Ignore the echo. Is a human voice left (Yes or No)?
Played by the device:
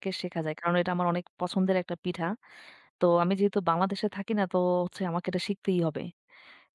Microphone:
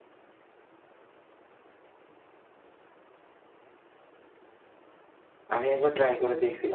Yes